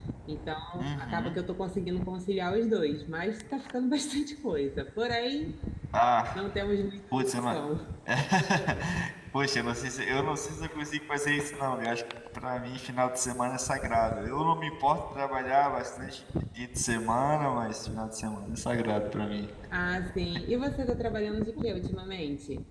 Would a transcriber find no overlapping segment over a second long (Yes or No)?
Yes